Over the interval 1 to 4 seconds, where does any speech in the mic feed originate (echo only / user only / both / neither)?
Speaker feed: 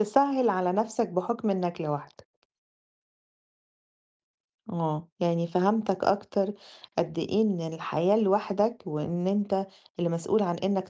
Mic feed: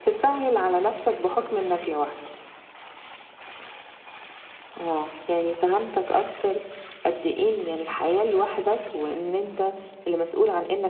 echo only